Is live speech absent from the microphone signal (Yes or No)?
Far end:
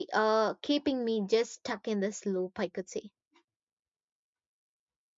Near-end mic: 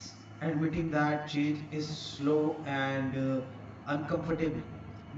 No